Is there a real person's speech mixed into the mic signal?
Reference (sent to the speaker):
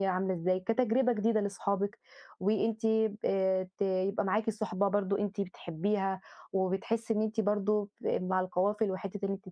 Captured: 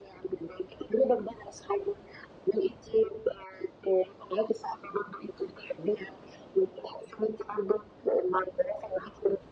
No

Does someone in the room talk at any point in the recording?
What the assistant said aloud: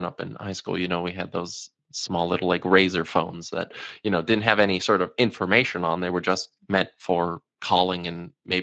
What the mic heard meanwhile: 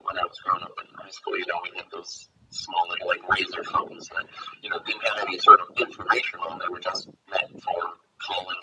No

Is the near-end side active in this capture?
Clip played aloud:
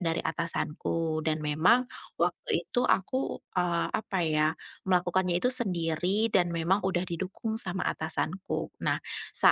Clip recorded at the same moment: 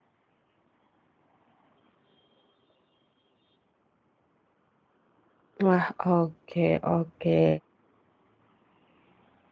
Yes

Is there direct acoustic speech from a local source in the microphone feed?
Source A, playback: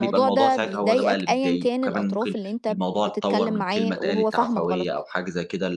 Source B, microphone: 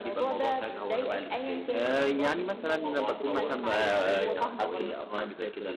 Yes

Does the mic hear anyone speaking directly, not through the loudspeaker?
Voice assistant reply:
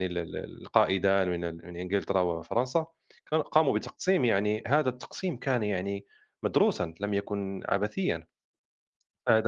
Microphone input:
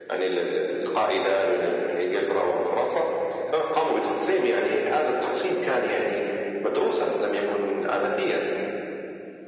No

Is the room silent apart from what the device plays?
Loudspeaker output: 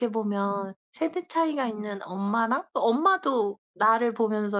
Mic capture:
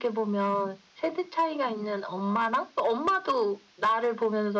Yes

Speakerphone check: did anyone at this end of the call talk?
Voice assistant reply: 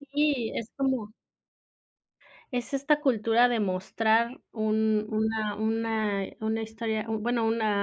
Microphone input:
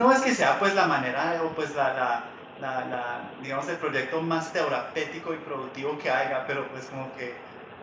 Yes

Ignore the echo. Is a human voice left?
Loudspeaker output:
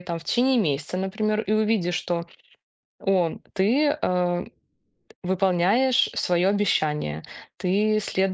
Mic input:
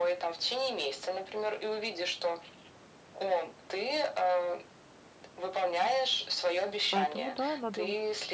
Yes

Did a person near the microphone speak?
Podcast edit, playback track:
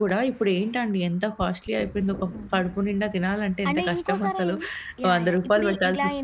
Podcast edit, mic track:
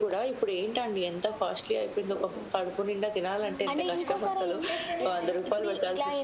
Yes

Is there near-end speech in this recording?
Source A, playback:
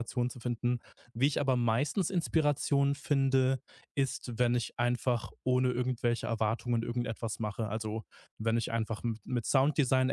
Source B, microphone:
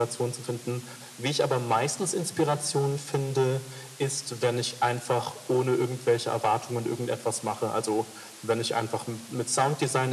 No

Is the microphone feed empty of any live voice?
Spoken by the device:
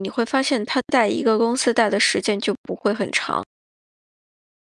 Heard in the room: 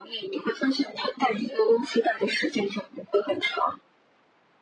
Yes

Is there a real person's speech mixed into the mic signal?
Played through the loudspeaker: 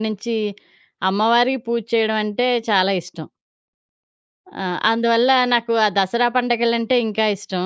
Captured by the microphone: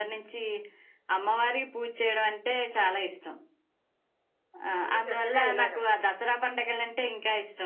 Yes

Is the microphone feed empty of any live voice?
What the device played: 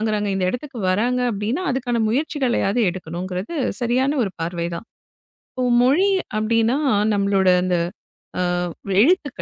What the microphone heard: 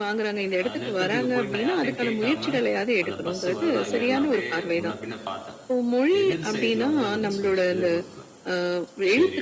No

